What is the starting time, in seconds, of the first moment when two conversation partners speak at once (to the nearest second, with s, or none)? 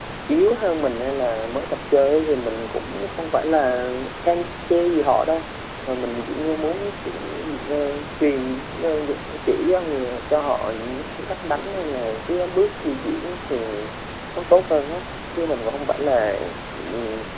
none